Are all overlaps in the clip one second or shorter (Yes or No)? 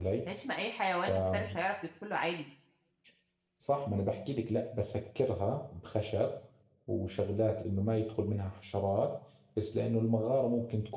Yes